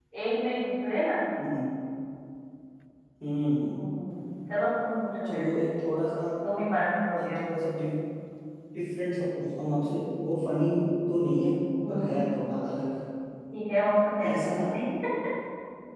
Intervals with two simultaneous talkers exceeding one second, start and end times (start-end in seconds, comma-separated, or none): none